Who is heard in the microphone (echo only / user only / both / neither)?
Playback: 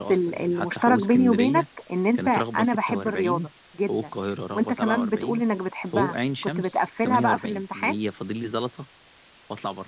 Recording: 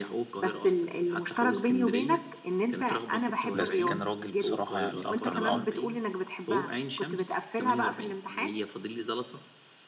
both